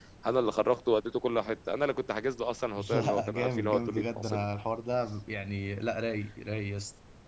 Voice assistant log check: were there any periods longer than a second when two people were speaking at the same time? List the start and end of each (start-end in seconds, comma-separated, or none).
2.9-4.4